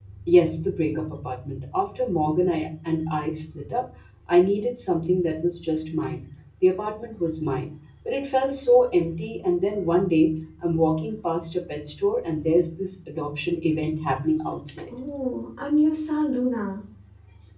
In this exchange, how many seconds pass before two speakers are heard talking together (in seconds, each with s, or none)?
none